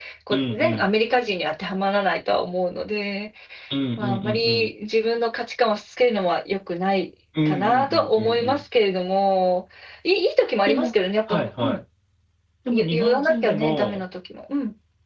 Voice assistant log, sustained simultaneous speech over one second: present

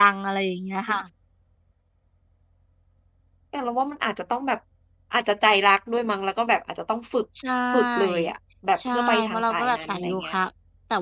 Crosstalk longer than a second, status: present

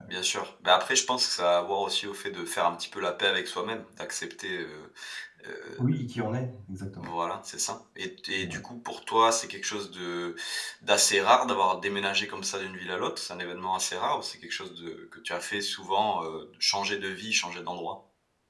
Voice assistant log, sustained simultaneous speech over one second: none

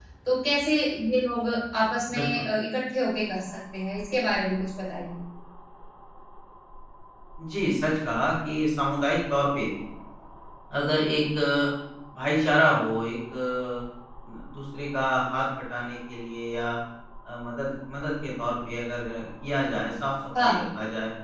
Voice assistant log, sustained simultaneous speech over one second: none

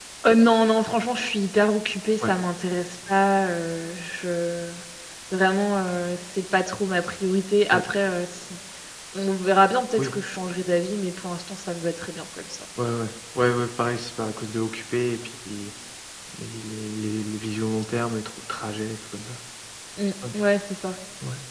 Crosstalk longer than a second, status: none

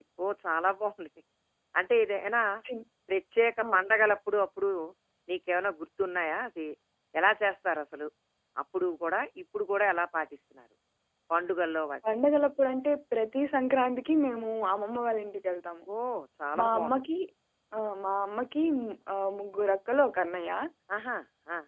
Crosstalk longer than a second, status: none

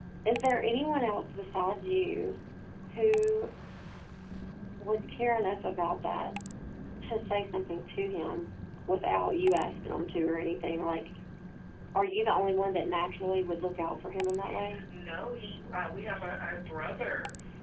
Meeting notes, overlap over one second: none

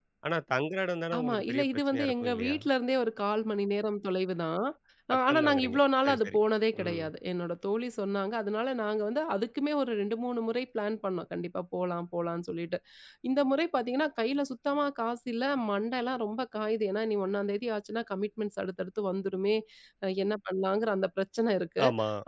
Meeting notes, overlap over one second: present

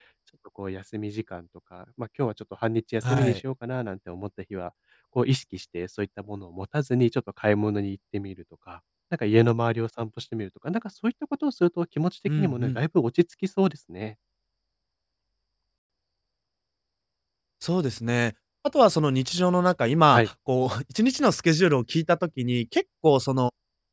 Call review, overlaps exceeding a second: none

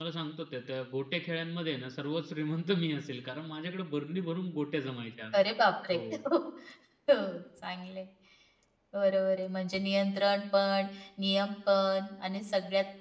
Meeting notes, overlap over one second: none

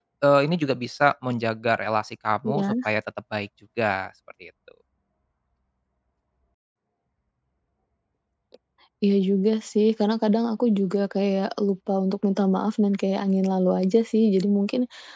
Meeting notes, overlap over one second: none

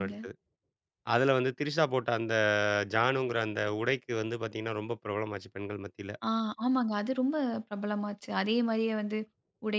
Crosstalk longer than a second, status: none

